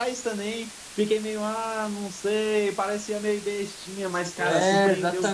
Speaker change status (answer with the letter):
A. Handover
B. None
A